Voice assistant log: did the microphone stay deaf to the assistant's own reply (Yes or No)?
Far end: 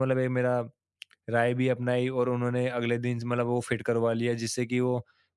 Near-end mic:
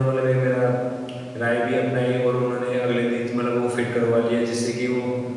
No